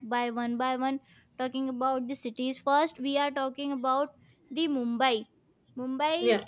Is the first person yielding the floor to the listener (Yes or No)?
No